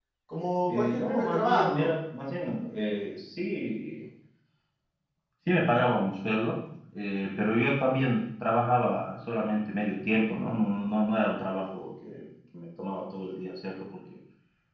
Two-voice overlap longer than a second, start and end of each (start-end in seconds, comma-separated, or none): 0.7-1.9